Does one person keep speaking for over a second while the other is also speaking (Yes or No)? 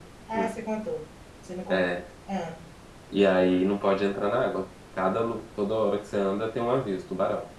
No